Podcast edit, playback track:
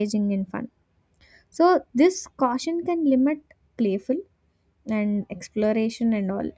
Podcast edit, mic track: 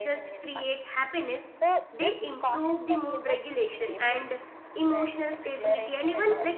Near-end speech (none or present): present